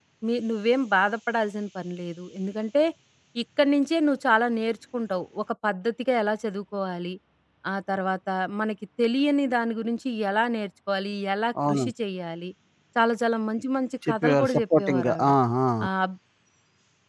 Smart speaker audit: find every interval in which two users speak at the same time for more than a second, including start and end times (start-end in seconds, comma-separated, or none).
14.1-15.3